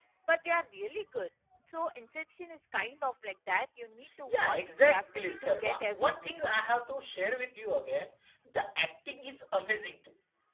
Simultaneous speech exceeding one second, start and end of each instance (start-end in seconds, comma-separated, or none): 4.3-6.3